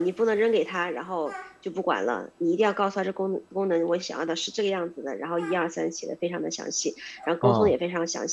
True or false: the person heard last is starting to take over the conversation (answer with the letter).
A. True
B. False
B